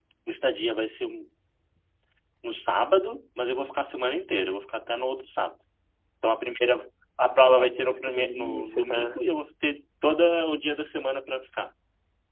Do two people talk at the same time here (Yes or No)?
Yes